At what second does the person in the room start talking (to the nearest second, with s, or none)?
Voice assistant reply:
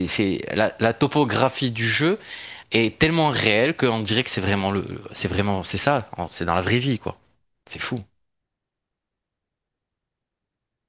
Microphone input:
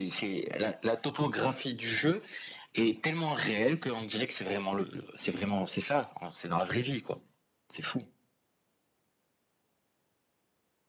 none